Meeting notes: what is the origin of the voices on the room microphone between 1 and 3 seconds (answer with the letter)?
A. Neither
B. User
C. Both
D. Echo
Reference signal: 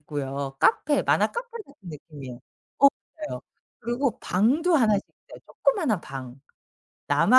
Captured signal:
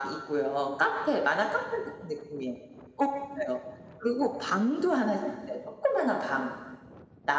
D